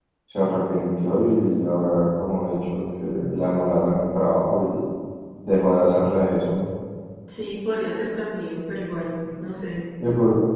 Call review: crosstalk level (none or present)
none